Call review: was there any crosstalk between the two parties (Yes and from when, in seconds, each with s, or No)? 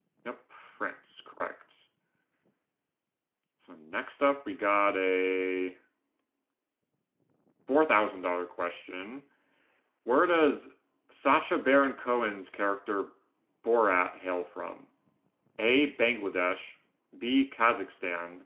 No